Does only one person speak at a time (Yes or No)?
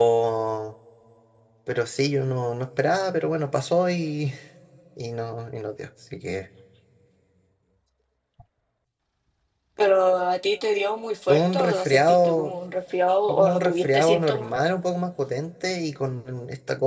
No